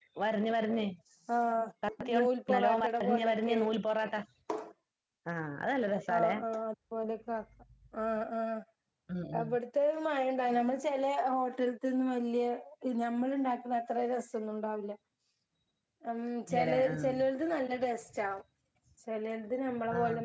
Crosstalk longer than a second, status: present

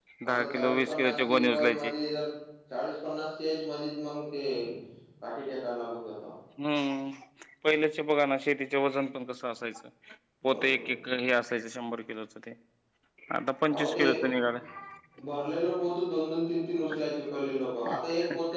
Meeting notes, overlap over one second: present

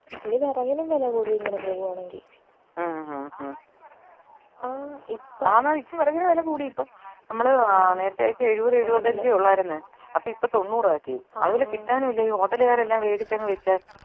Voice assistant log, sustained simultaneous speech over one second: none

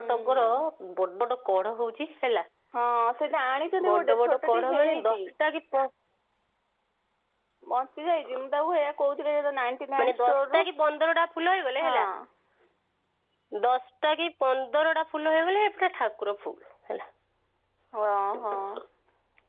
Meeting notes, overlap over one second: present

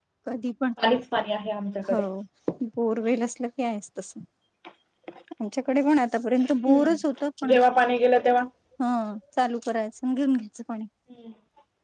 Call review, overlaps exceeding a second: none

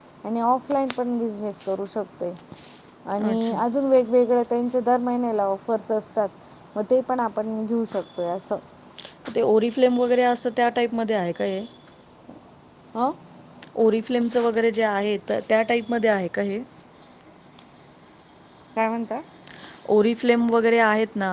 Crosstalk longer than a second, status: none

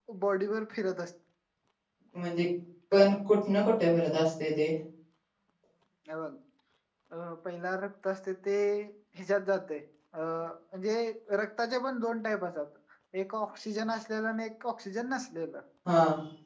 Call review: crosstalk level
none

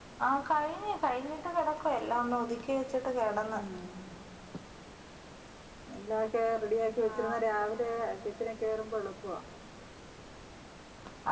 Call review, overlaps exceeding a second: none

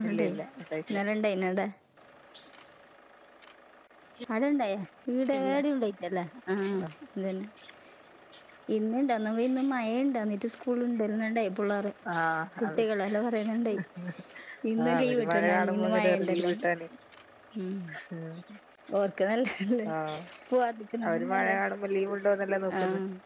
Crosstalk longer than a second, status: present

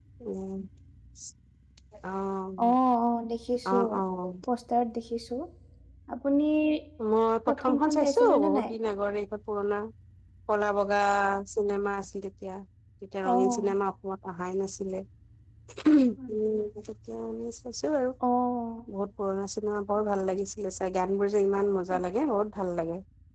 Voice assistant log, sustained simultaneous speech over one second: present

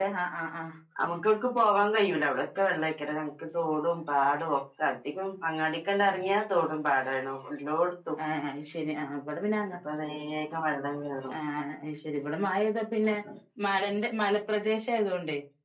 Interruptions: none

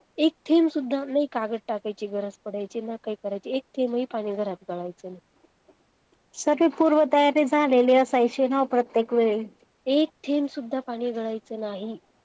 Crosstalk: none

